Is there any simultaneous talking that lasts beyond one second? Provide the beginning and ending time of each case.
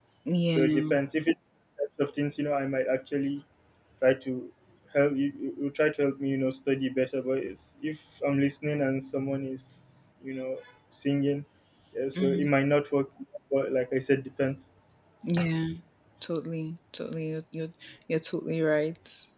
none

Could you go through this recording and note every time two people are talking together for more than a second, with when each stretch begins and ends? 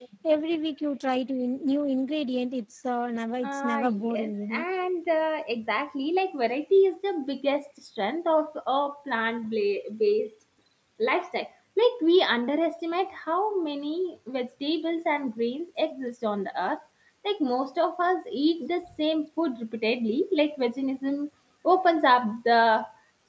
3.4-4.6

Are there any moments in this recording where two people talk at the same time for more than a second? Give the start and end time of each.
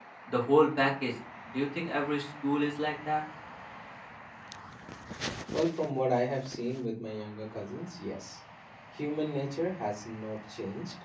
none

